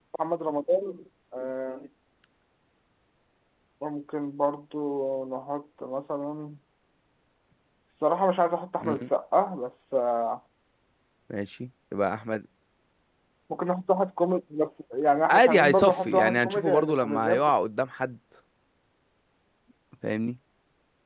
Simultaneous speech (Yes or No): Yes